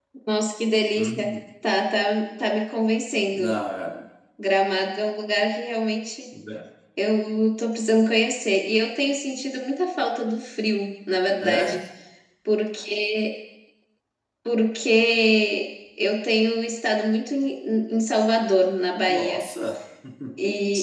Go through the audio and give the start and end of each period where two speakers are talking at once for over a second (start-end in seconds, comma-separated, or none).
none